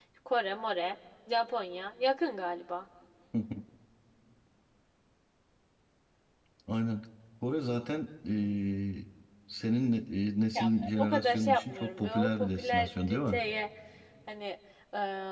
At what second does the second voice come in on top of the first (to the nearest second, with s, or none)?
11 s